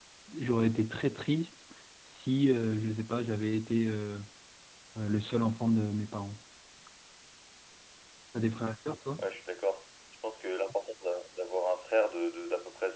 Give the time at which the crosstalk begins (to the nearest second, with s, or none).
none